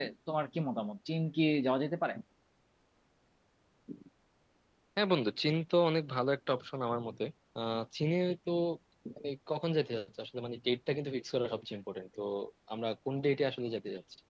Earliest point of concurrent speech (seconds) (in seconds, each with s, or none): none